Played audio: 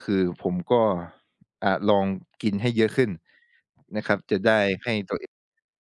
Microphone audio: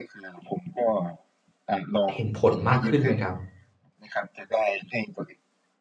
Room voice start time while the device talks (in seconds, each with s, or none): 2.1 s